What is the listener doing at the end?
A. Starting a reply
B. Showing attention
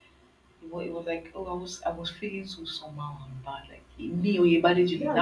A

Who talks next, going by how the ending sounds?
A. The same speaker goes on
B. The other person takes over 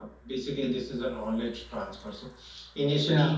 A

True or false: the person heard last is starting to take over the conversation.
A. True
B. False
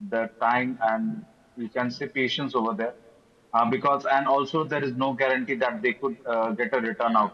A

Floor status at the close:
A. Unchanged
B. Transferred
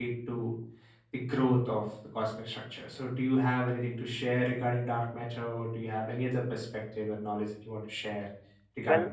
B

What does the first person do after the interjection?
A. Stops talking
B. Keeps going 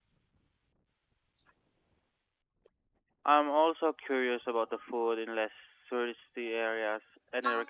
A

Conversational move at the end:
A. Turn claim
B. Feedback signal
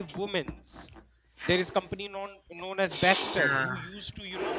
B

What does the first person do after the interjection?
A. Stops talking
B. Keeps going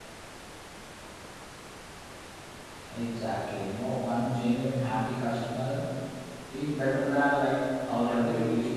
A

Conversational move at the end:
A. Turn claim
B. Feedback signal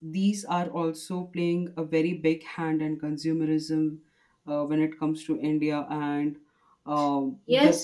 A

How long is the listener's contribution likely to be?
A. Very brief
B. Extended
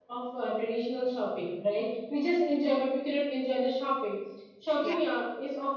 A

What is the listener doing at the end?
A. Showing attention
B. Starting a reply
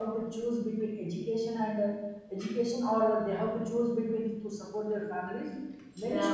A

